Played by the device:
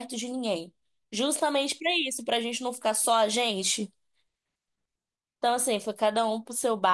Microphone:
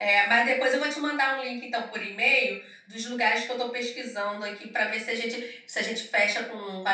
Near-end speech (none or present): present